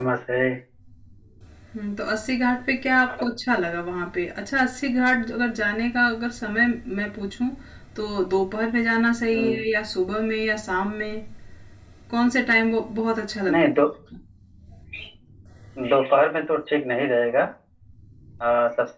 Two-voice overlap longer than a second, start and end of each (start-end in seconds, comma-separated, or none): none